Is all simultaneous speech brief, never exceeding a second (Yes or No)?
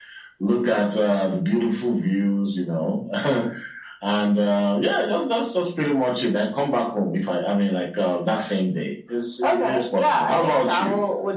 No